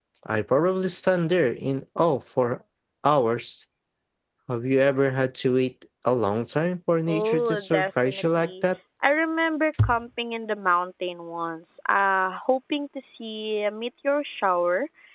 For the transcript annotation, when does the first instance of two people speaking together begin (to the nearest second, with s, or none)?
7 s